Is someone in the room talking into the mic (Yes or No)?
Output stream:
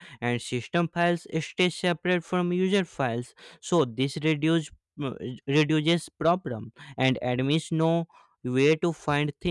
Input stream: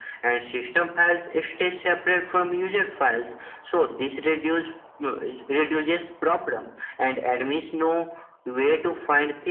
No